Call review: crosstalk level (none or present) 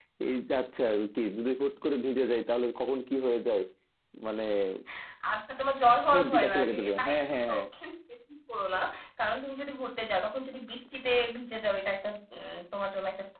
present